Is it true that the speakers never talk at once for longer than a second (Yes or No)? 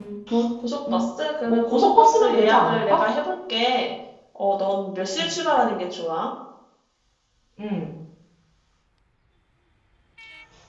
No